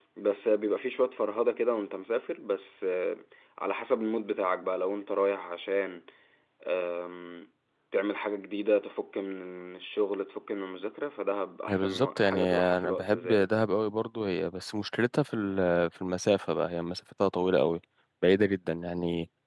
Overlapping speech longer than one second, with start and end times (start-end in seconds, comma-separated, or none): 11.7-13.5